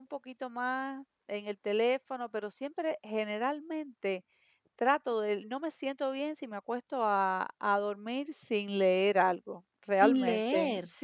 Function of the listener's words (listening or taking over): taking over